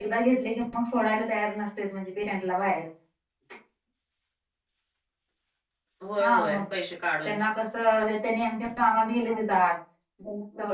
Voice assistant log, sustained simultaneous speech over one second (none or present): none